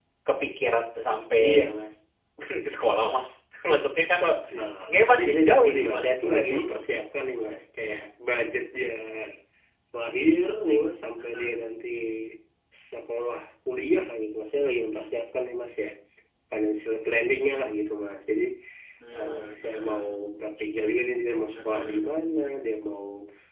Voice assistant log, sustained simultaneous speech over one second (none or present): present